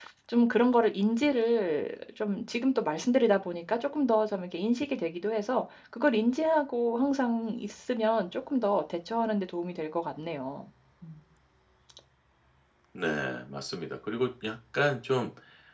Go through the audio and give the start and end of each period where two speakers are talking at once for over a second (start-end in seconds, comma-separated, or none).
none